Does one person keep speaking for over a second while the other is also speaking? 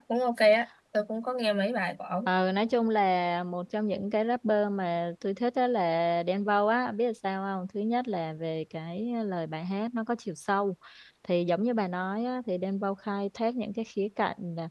No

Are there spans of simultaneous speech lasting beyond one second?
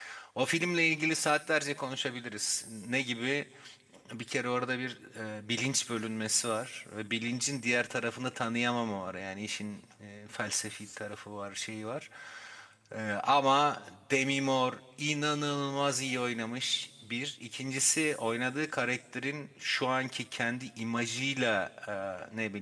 No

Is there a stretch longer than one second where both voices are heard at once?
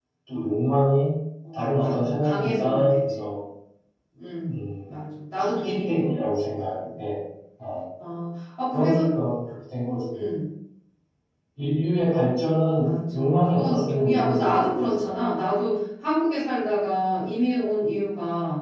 Yes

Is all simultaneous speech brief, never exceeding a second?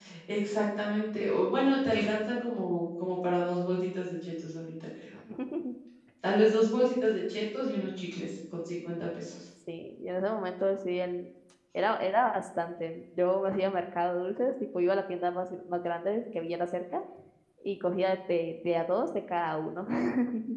Yes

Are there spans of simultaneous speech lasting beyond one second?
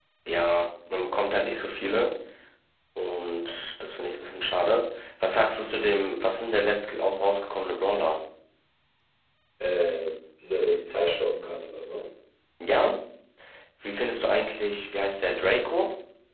No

